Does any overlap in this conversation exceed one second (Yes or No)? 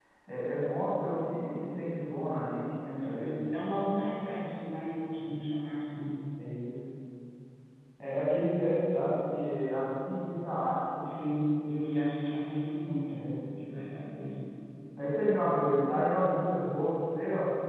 No